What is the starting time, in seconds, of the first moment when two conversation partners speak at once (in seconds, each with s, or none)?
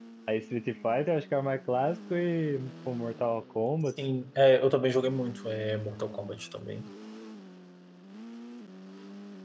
none